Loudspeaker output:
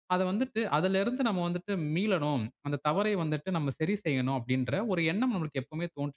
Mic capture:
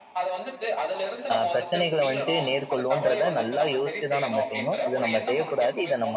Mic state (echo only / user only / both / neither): both